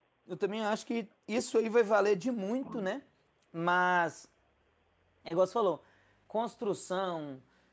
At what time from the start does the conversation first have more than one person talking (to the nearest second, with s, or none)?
none